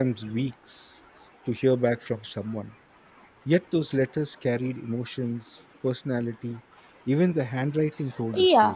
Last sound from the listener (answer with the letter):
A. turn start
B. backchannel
A